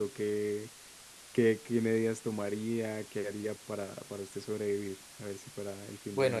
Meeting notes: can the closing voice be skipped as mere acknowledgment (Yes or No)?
No